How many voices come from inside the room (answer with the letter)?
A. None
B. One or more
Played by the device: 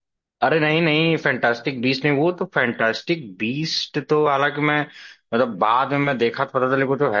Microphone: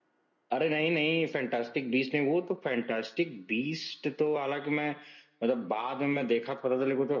A